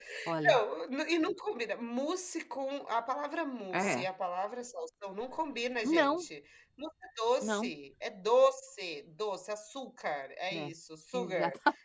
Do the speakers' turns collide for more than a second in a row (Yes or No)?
No